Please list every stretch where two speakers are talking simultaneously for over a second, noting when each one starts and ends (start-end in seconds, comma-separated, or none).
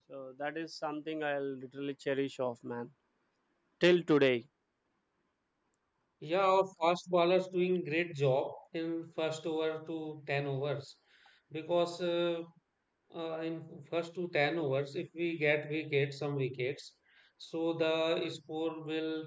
none